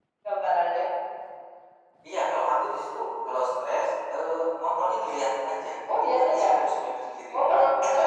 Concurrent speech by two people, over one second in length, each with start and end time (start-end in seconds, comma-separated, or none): none